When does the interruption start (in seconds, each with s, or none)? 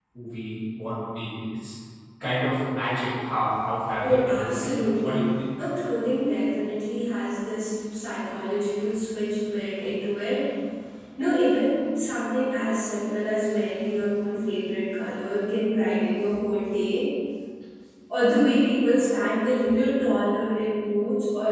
4.0 s